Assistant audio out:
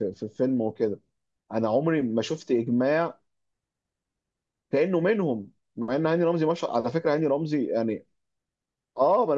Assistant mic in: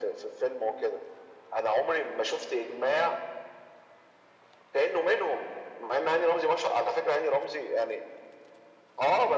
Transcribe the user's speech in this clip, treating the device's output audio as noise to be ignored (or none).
none